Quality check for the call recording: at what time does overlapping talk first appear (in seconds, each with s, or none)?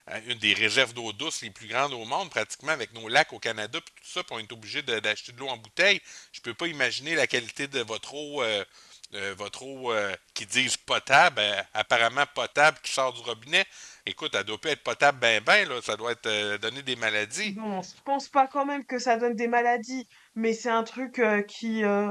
none